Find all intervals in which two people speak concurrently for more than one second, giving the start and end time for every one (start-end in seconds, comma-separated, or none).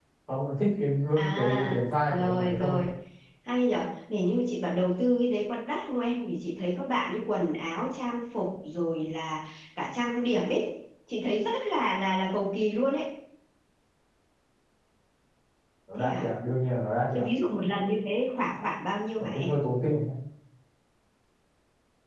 1.3-2.8